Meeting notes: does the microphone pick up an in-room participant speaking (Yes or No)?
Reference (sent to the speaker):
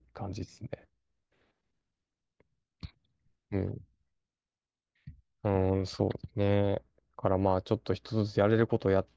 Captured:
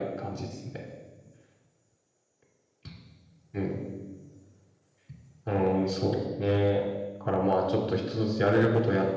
No